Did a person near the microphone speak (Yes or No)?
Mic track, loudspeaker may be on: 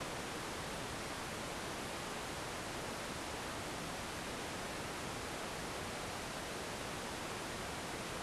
No